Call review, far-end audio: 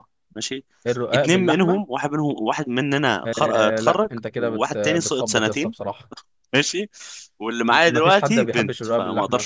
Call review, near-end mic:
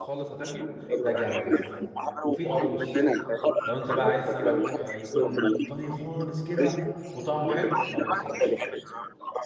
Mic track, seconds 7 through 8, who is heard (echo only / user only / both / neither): both